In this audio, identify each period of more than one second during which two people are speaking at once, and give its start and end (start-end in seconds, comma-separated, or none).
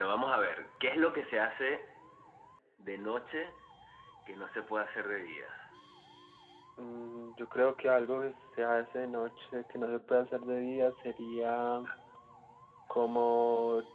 none